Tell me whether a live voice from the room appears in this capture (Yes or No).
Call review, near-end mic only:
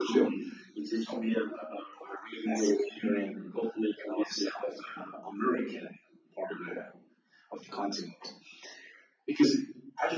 No